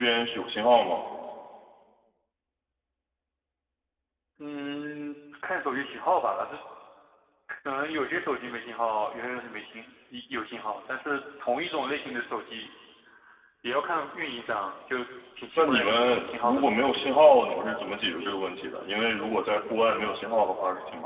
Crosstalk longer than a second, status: present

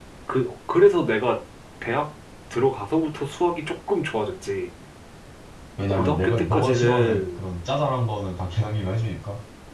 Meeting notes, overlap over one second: present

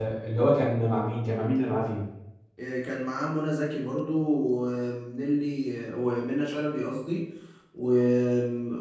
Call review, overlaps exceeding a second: none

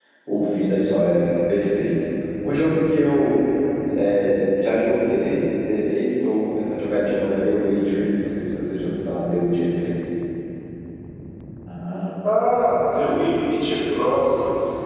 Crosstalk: none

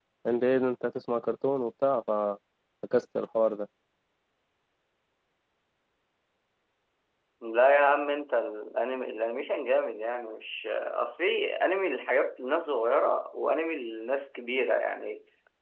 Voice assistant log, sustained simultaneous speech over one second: none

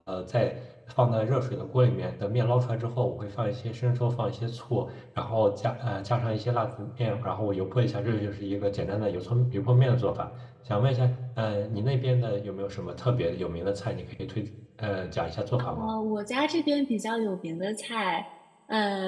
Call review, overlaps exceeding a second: none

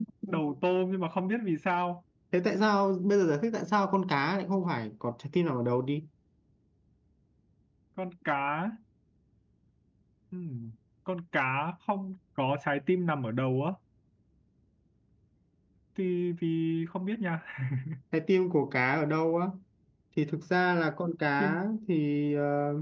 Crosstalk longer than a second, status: none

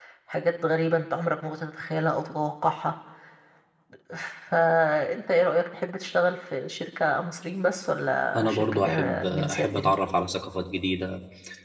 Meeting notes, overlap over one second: present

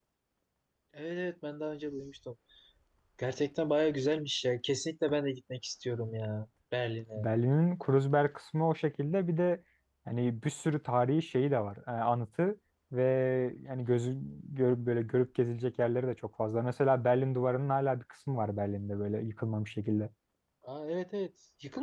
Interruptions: none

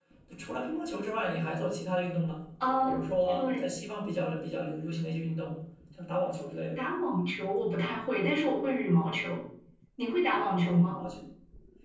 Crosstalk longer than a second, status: none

